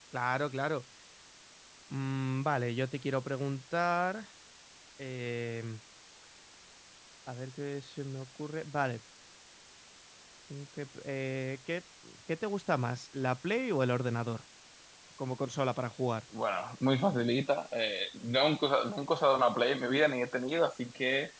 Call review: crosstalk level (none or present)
none